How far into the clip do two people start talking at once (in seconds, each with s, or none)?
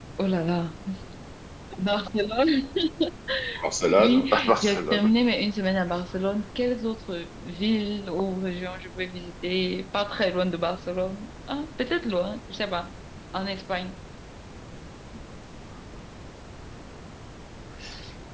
3.9 s